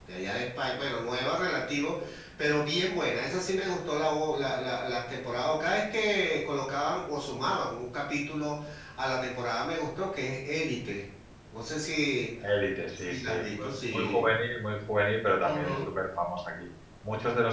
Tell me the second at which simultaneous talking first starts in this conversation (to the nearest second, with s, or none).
13 s